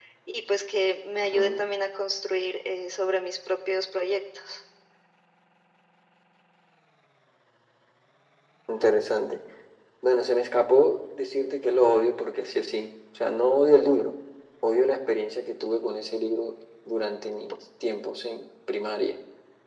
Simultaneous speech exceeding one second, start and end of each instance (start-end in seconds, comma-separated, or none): none